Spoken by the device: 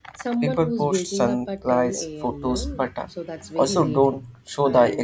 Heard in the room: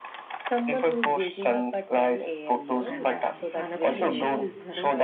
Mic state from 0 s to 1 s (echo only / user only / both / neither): echo only